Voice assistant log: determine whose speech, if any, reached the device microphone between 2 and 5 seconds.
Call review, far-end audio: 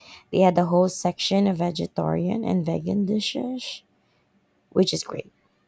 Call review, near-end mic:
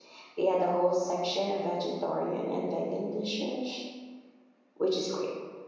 echo only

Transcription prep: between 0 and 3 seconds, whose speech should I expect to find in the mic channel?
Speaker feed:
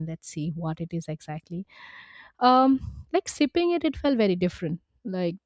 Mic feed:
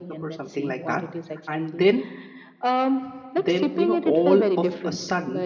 both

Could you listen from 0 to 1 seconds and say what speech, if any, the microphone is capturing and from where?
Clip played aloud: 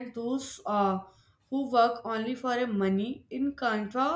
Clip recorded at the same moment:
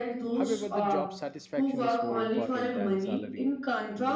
both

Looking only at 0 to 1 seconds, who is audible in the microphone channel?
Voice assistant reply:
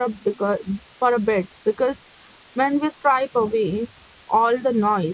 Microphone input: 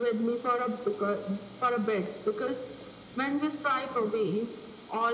echo only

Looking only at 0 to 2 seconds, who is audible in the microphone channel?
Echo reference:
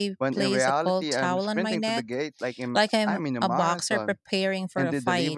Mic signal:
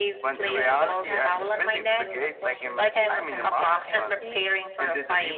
both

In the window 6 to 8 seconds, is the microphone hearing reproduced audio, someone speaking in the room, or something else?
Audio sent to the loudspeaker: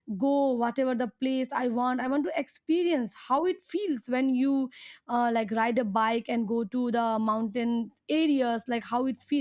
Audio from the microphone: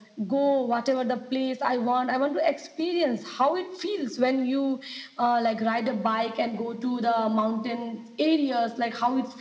echo only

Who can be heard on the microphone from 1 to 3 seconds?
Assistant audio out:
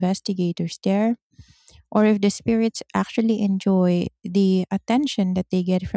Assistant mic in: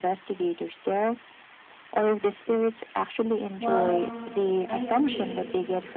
echo only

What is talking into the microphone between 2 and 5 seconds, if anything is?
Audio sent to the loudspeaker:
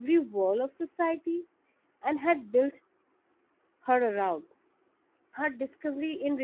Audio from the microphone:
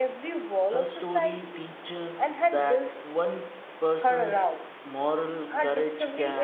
both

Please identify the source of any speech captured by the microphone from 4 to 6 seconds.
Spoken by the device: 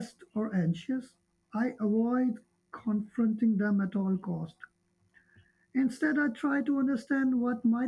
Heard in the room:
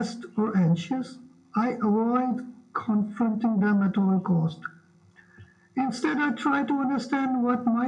echo only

